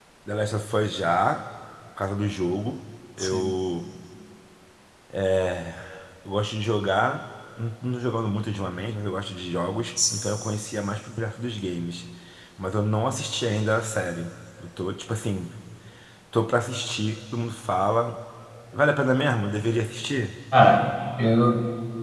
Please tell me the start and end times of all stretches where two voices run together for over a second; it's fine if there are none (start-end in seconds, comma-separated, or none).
none